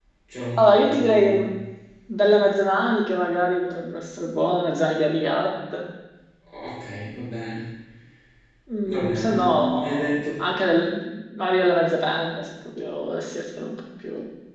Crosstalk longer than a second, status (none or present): present